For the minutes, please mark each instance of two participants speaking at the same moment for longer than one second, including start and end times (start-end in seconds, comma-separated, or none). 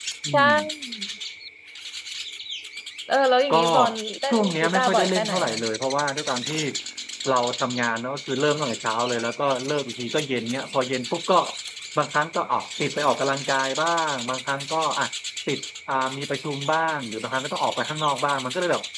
4.3-5.6